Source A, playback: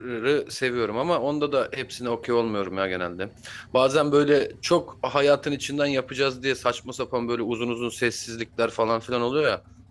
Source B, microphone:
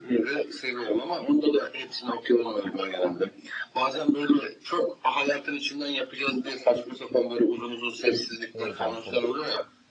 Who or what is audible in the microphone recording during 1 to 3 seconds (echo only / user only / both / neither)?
echo only